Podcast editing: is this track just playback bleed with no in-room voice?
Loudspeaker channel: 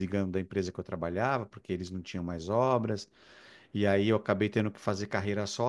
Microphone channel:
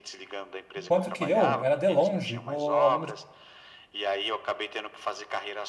No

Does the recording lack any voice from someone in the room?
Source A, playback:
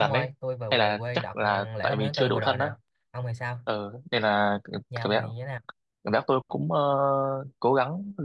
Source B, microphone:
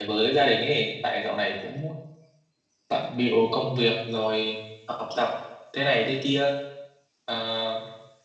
No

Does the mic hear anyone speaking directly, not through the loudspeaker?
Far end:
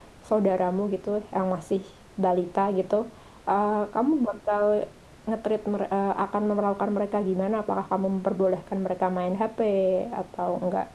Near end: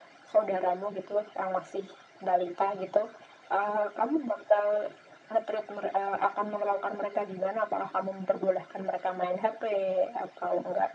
No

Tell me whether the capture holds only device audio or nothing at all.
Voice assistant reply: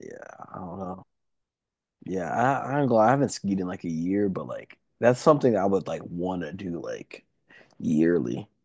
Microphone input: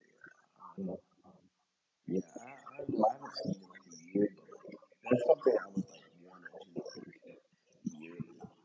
Yes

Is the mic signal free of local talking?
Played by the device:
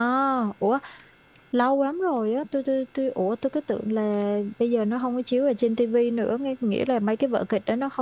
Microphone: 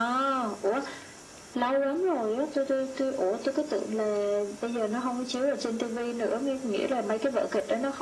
Yes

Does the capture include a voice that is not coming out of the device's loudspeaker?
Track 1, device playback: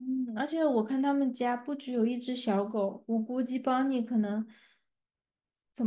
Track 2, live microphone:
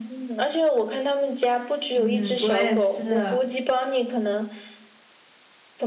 Yes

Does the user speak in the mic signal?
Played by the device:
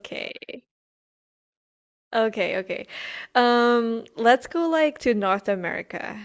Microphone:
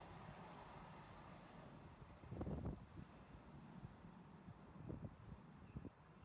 No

